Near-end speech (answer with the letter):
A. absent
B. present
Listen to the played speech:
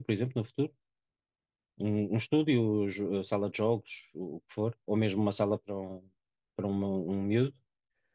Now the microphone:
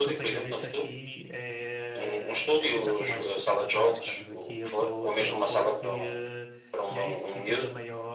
B